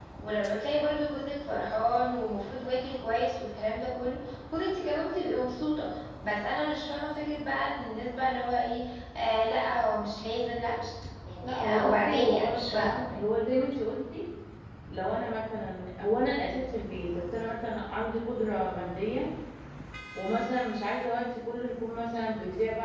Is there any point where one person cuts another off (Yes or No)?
Yes